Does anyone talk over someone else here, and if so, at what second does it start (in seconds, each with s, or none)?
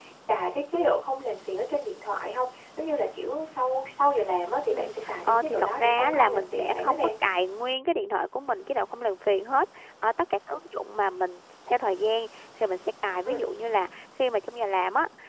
4.7 s